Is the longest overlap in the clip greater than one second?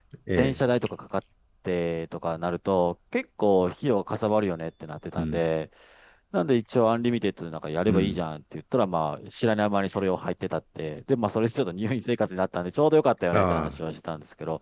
No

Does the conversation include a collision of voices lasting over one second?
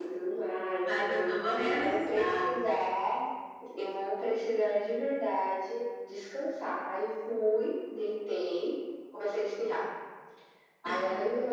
Yes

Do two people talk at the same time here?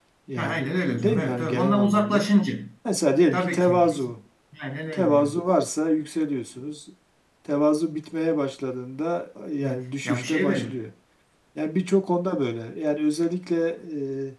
Yes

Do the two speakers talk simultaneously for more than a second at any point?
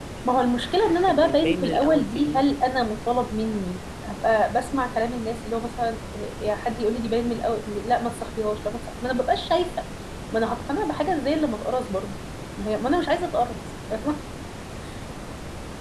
Yes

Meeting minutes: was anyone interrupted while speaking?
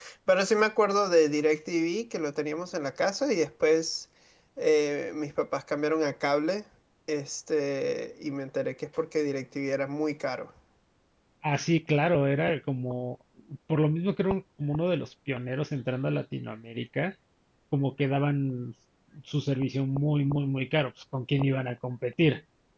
No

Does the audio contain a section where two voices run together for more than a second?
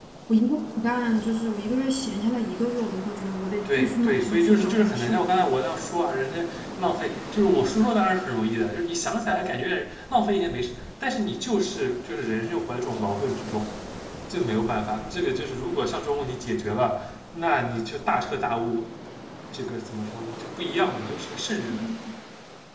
Yes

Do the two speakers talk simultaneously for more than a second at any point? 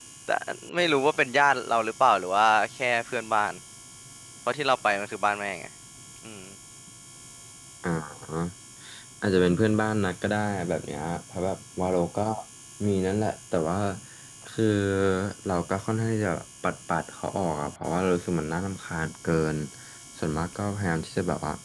No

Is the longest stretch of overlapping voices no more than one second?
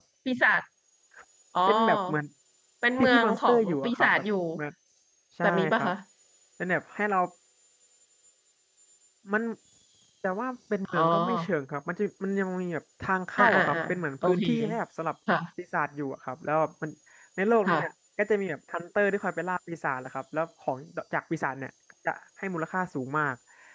No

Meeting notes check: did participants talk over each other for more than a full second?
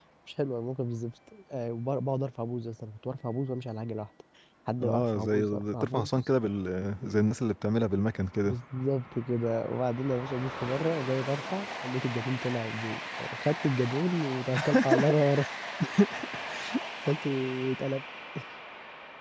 Yes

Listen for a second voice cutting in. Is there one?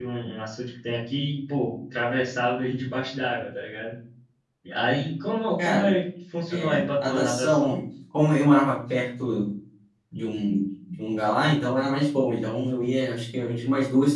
Yes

